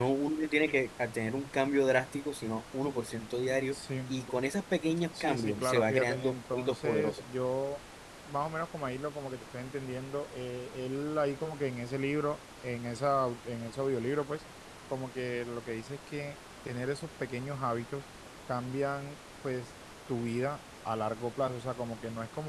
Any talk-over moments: Yes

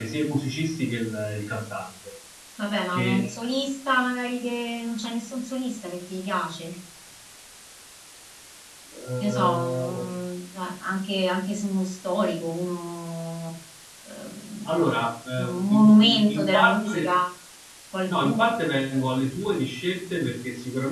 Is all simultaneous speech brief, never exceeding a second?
No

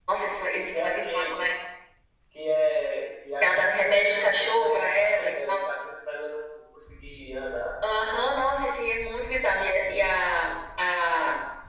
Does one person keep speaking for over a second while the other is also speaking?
Yes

